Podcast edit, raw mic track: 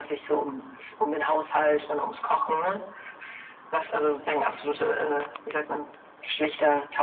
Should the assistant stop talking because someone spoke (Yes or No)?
No